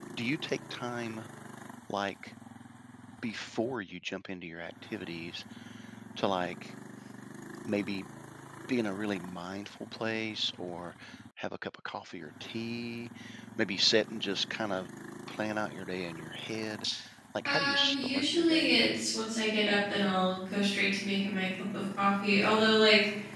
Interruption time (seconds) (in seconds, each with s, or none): 17.4 s